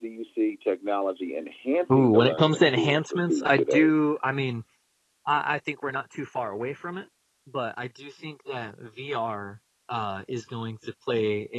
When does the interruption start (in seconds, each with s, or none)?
1.9 s